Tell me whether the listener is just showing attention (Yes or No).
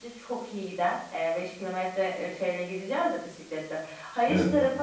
Yes